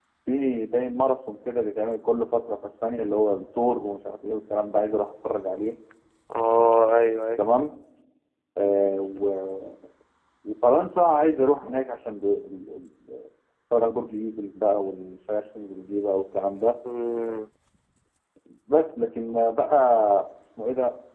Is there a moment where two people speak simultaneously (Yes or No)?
No